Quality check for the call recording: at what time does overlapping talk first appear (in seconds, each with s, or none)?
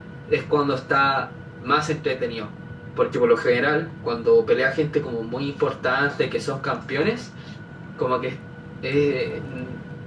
none